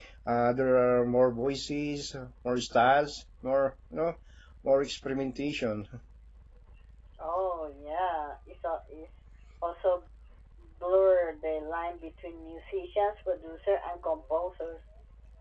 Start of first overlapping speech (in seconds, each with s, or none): none